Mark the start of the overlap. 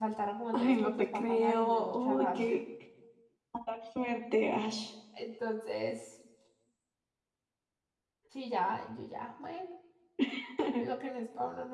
0.5 s

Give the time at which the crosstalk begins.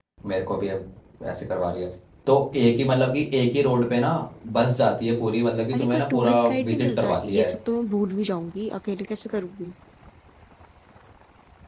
5.7 s

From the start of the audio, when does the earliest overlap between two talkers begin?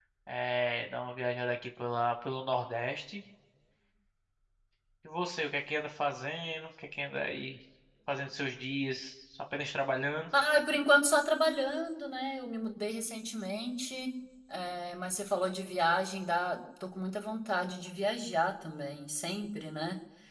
none

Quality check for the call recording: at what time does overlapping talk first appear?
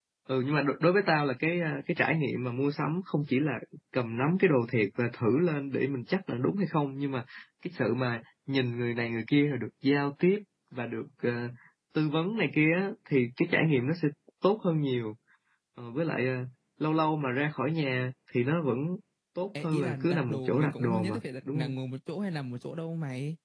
19.6 s

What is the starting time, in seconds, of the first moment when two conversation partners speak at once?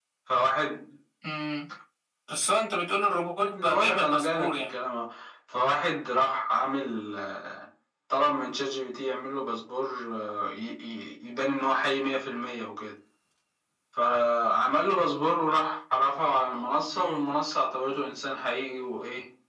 3.5 s

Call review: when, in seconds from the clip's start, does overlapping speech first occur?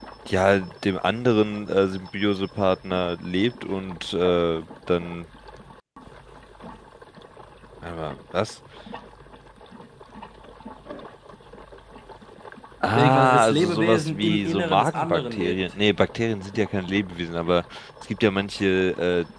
13.0 s

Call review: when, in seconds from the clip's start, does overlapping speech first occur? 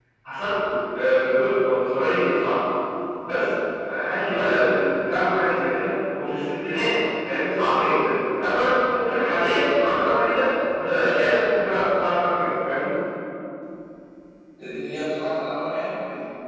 none

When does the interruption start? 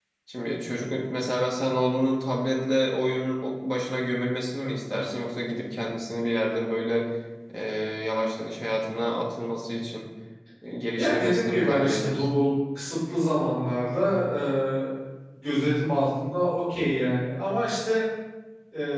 11.0 s

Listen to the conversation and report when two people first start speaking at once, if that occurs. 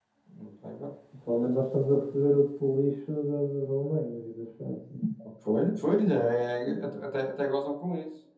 none

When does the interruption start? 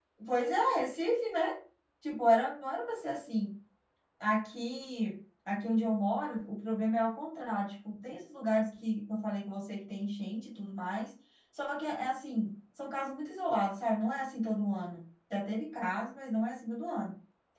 none

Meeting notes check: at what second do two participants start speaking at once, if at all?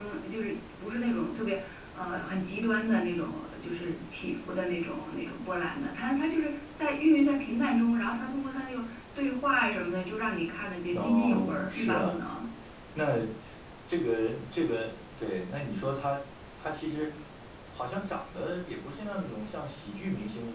10.9 s

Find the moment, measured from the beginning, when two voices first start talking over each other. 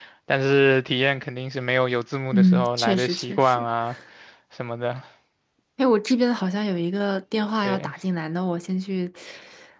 2.3 s

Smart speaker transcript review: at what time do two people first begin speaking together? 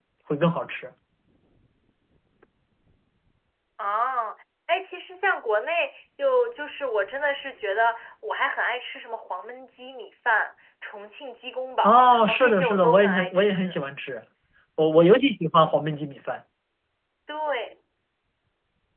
11.8 s

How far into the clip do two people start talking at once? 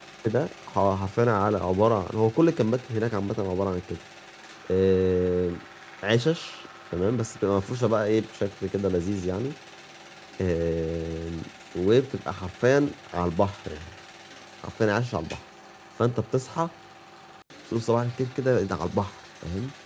none

